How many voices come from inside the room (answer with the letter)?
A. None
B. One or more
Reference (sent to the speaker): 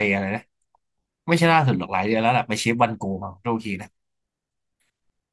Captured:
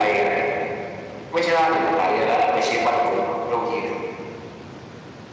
A